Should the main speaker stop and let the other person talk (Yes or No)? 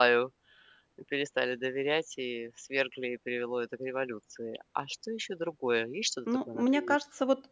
Yes